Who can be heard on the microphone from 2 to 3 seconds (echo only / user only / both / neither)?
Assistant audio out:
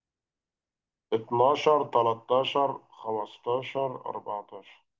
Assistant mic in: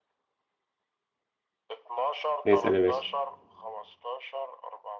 both